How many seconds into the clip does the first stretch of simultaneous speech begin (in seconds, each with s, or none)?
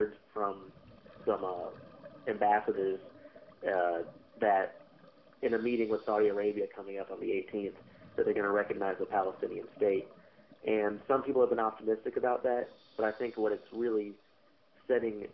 none